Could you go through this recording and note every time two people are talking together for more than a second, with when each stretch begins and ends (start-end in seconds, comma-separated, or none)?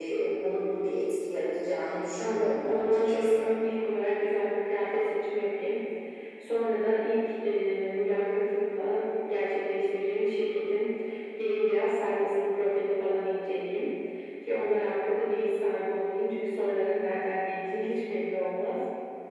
2.2-3.4